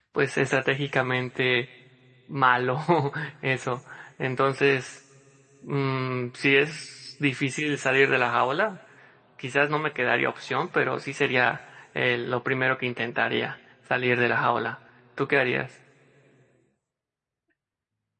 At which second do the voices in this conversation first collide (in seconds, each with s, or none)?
none